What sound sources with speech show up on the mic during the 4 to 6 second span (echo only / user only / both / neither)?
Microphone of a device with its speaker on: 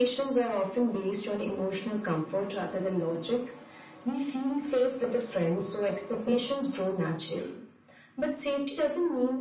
echo only